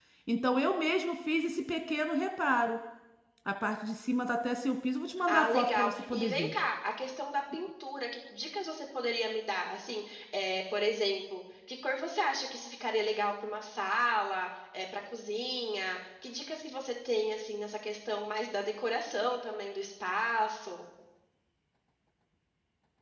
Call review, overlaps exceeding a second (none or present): present